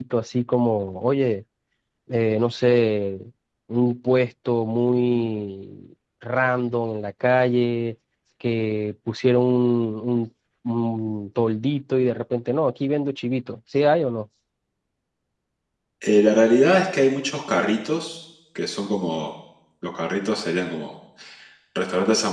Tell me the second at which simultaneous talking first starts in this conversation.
none

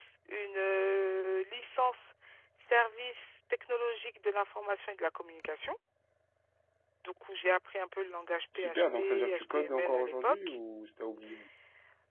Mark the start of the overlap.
9 s

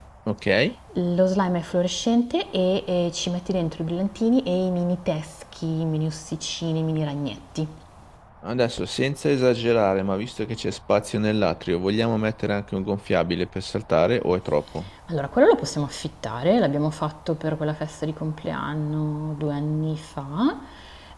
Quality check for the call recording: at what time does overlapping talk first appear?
none

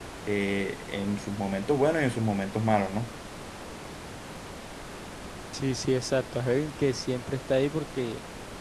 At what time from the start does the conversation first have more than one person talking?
none

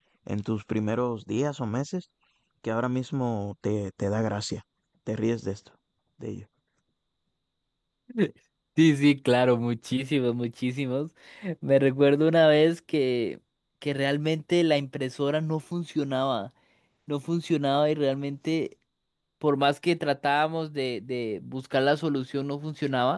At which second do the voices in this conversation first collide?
none

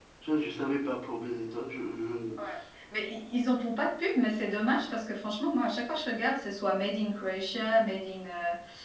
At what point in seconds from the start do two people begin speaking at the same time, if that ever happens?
none

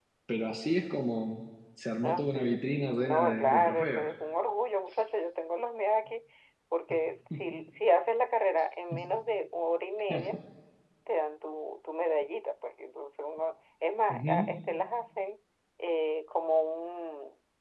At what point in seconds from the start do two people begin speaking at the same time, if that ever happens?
2 s

